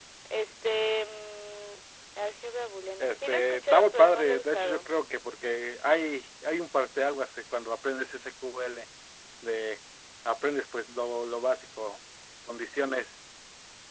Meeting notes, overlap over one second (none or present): present